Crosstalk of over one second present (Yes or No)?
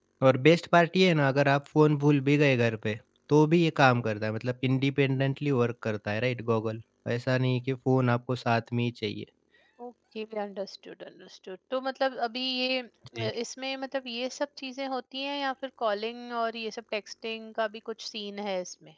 No